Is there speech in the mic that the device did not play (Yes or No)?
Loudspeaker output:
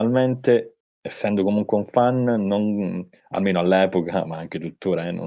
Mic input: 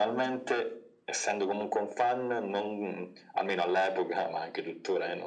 No